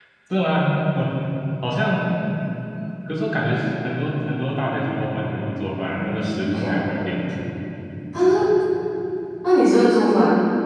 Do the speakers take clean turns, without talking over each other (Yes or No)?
No